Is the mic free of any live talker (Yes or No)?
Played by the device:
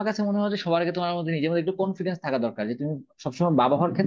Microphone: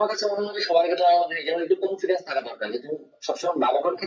Yes